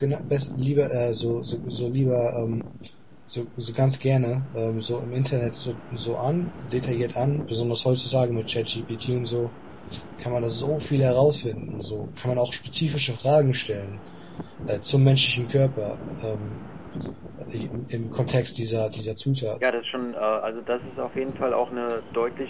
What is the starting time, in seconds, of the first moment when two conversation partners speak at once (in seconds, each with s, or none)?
none